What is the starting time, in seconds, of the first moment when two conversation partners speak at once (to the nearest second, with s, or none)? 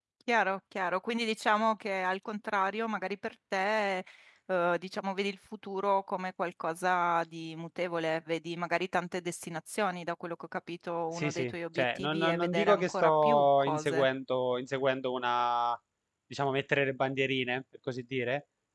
11 s